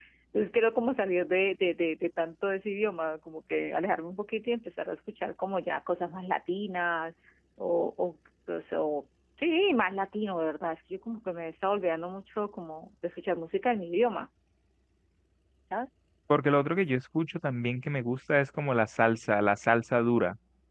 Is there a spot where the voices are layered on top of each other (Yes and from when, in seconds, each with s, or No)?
No